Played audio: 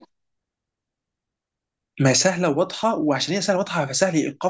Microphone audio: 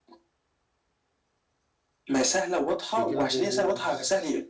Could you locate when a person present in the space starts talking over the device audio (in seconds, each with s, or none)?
2.8 s